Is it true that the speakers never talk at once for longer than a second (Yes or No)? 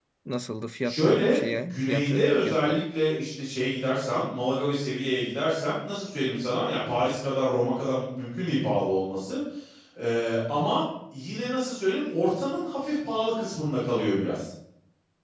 No